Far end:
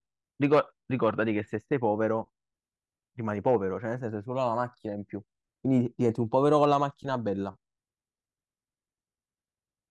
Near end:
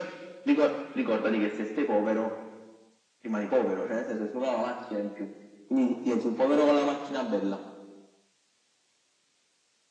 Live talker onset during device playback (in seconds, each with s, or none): none